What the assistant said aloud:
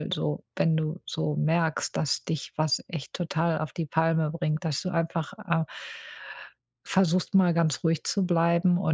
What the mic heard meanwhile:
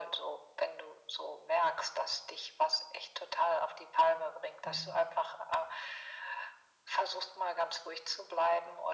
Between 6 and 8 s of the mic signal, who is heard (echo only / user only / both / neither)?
echo only